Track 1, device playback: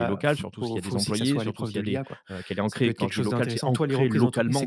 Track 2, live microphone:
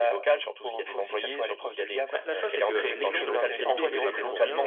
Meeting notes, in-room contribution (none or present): present